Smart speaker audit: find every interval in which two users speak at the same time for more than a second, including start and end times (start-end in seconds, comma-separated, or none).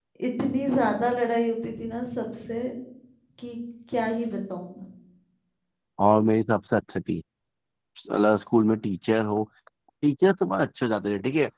none